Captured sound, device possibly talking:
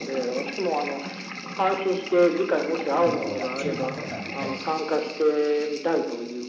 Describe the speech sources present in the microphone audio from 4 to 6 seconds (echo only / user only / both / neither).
both